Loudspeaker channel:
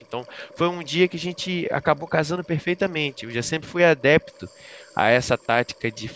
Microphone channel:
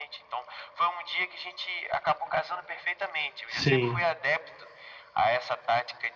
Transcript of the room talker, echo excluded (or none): Sim.